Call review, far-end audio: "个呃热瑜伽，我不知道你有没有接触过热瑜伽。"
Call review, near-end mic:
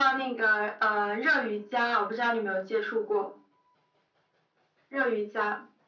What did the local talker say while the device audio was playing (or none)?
none